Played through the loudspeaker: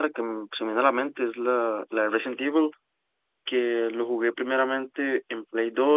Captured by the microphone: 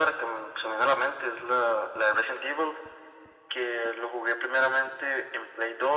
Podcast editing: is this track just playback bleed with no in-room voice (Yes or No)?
Yes